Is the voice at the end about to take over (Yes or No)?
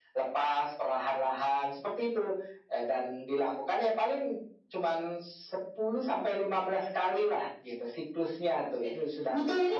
Yes